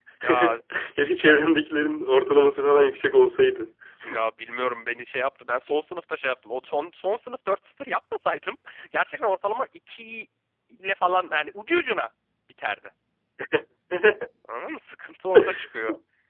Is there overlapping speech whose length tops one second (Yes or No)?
No